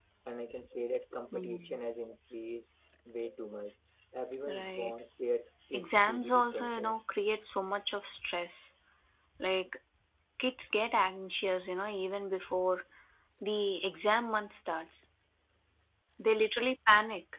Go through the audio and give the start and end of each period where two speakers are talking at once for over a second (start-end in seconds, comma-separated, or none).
5.7-7.0